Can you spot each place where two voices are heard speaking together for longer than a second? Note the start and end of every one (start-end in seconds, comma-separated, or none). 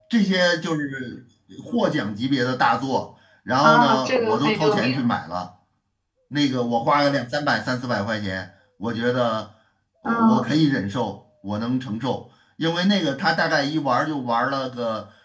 3.6-5.1